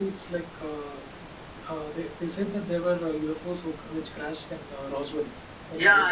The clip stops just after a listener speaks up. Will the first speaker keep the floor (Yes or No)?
No